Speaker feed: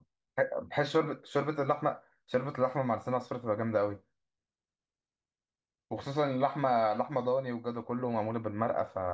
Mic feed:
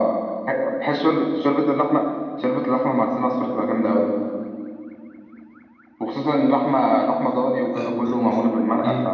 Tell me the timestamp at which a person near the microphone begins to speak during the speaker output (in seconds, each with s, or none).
7.8 s